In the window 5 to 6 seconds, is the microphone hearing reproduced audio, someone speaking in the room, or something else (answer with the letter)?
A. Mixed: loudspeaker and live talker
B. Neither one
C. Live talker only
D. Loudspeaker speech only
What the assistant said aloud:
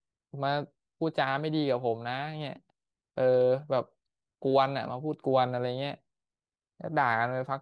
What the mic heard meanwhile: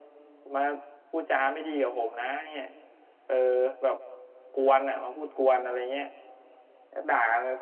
D